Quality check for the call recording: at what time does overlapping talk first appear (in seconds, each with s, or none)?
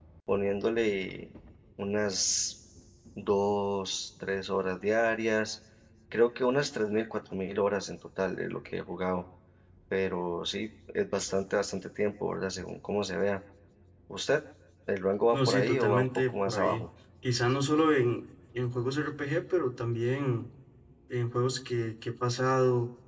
15.3 s